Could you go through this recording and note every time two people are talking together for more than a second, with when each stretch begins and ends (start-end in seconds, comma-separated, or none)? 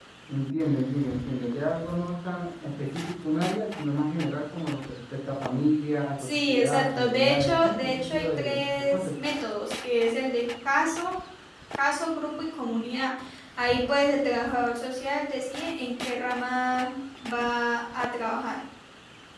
6.2-9.1